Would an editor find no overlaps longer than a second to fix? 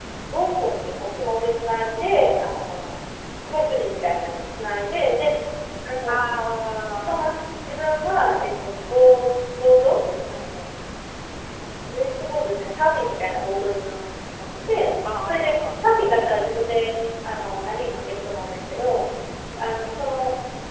No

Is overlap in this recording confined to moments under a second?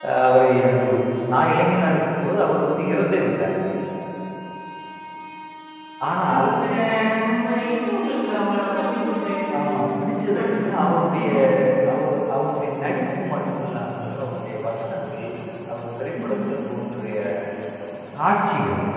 No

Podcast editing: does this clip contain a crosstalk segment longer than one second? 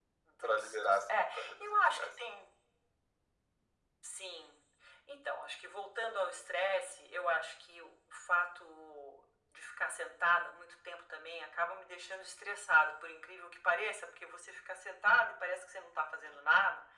Yes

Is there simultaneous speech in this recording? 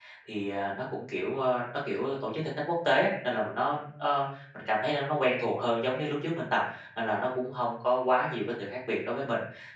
No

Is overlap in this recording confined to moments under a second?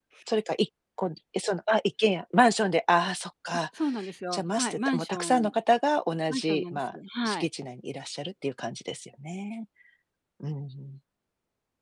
No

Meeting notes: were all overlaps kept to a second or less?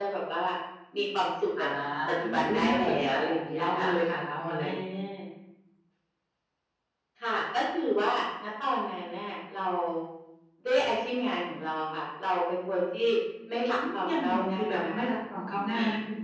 No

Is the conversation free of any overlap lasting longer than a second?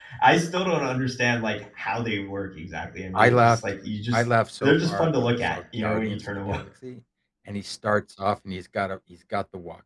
No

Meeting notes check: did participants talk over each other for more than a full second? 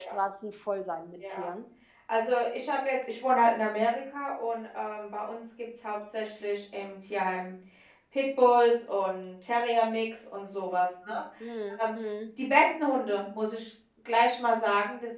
No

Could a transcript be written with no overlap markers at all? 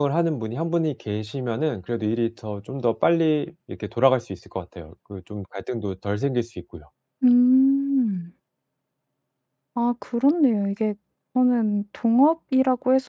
Yes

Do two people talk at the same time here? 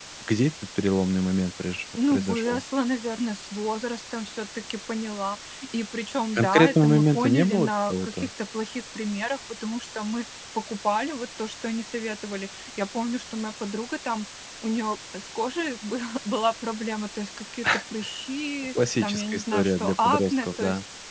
Yes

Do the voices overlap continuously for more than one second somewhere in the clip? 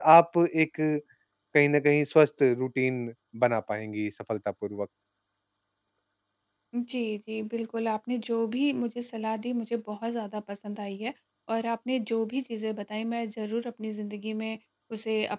No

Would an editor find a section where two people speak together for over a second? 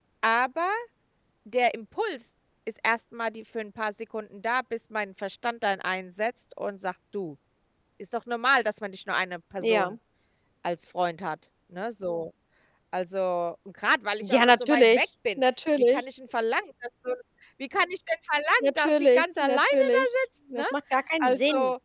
Yes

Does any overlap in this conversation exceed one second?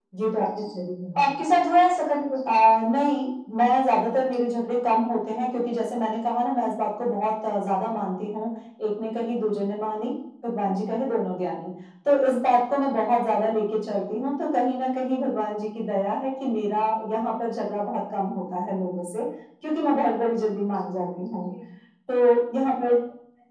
No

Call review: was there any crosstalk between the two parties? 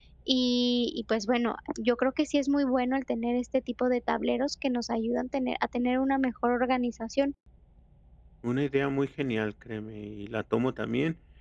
No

